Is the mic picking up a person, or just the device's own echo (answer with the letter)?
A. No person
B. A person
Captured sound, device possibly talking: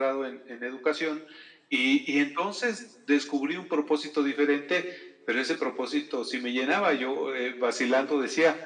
A